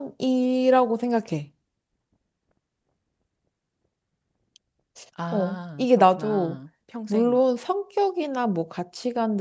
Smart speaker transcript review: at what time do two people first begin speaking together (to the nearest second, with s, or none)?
5 s